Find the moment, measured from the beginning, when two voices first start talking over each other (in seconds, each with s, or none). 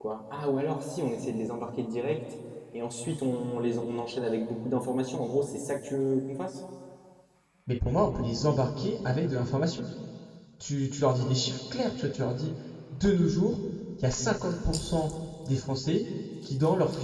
none